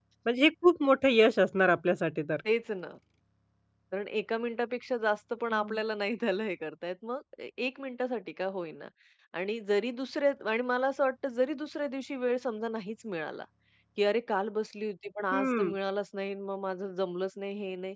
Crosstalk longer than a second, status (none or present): none